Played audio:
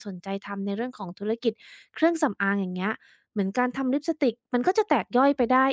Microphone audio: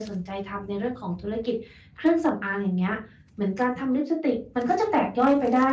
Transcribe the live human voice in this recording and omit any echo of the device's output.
none

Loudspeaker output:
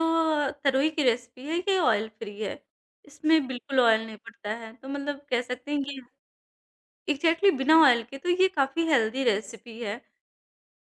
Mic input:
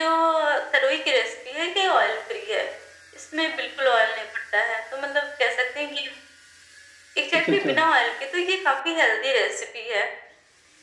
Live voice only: अच्छा, अच्छा,

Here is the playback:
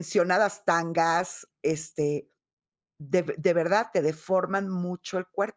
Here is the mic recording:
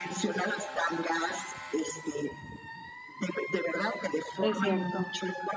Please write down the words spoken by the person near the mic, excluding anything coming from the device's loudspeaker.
es cierto,

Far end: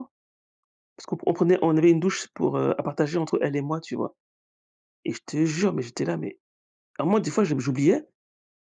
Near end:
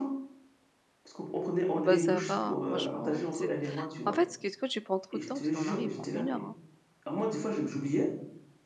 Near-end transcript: Ah bah, ça va, hein, franchement, c'est en fait, qu'est-ce que tu prends trop de temps? Parce que mon mari il prend une heure, hein.

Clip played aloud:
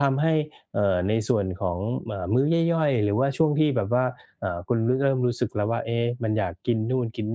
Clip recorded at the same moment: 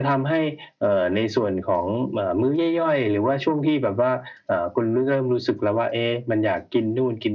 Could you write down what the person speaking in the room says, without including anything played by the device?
none

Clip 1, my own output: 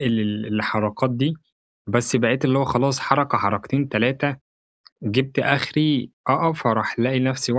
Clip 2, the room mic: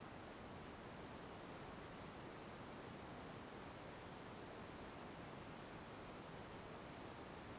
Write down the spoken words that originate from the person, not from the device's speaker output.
none

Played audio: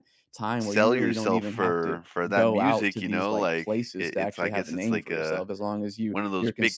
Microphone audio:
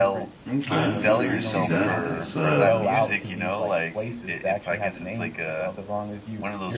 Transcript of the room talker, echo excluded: Okay, yeah, I see that. That's, uh

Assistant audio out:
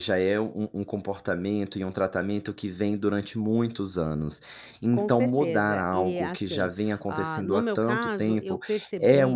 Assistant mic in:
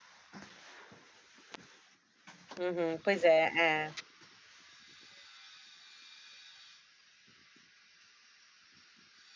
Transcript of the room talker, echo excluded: Uhum, pois é, é.

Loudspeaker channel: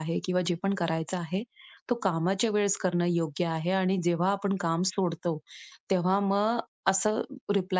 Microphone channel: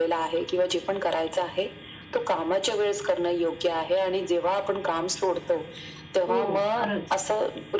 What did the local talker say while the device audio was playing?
हो, खरंच.

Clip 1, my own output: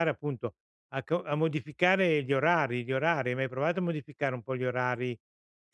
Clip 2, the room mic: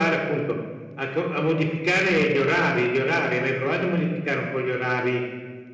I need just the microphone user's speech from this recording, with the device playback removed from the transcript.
none

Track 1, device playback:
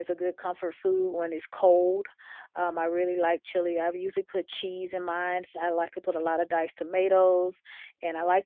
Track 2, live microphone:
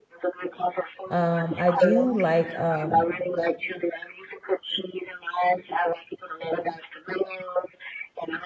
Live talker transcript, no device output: Um, I do like, um,

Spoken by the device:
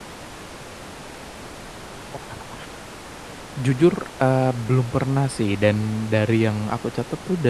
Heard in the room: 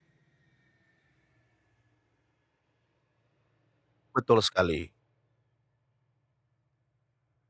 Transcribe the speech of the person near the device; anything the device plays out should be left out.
Betul sekali.

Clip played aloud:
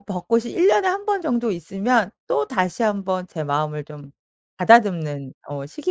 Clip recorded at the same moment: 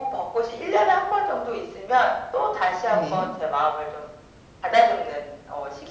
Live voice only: 네.

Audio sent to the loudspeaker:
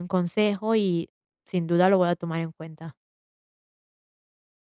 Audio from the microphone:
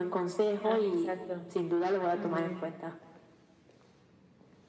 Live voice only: ah, exacto. Ujú.

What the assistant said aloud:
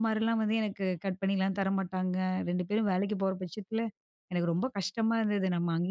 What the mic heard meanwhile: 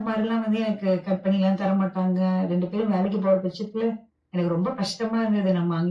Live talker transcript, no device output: none

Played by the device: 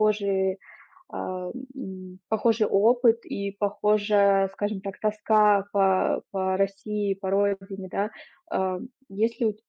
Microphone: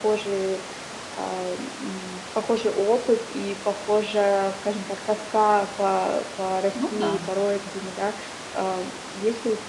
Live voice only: Ну да.

